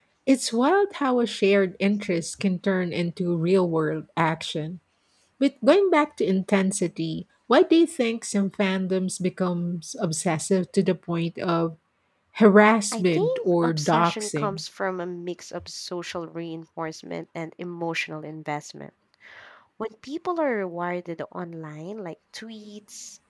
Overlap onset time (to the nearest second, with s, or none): 13 s